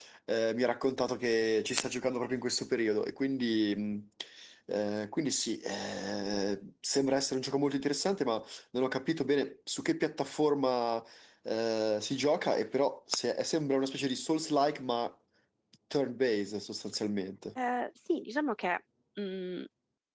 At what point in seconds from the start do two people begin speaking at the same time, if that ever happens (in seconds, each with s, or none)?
none